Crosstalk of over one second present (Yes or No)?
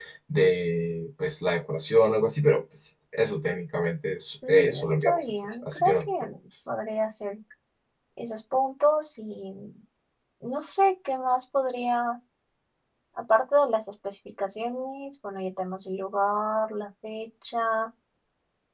Yes